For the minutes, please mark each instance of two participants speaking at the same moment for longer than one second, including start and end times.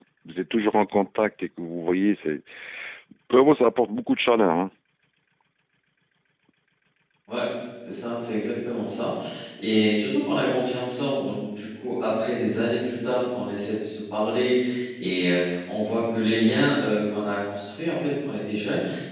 none

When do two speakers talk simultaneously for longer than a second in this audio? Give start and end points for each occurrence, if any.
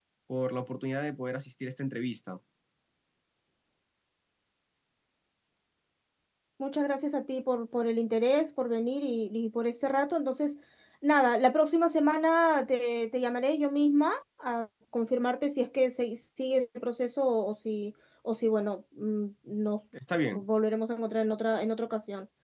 none

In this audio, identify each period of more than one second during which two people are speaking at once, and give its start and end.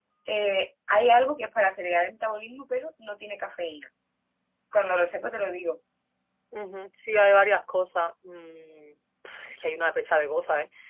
none

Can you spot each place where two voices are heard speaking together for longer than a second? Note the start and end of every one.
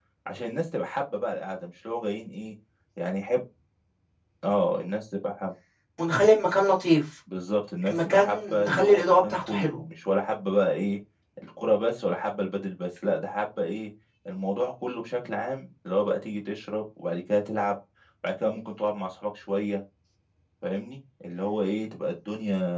7.9-9.8

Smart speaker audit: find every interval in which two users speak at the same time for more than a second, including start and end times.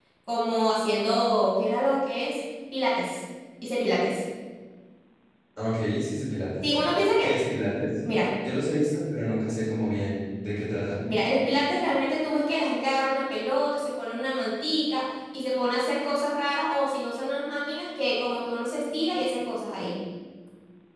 none

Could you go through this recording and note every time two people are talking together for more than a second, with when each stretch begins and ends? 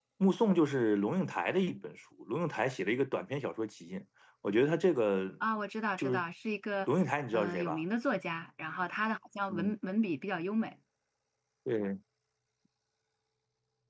none

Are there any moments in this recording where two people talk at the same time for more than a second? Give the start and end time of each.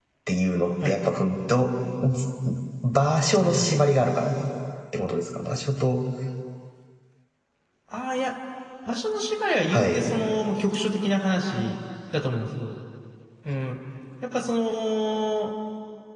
none

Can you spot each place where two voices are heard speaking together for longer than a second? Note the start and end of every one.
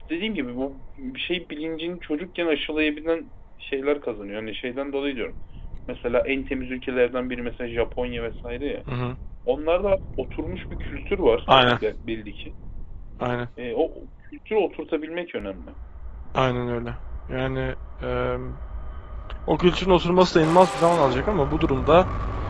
none

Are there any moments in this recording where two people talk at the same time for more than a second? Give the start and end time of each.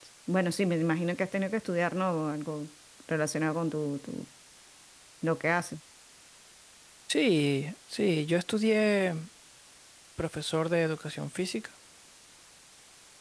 none

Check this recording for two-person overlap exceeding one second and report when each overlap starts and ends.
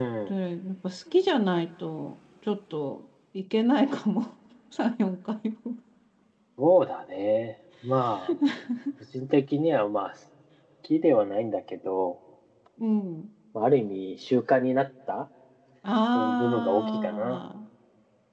16.2-17.4

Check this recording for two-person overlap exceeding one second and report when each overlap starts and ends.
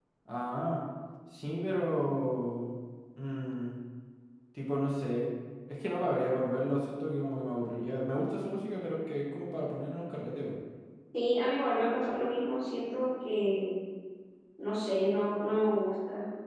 none

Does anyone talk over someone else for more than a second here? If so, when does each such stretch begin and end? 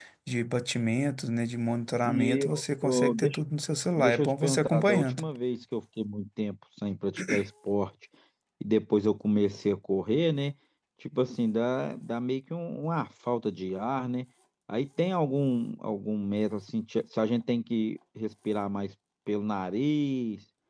2.0-3.4, 4.0-5.2

